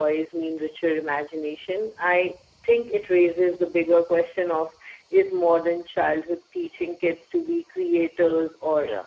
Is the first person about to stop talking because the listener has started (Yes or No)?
No